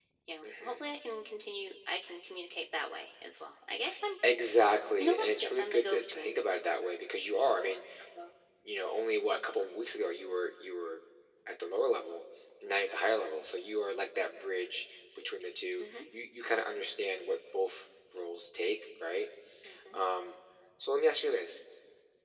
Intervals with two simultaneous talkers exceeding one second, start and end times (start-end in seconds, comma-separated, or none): 5.0-6.3